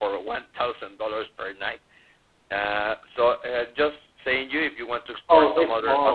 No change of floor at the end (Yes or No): No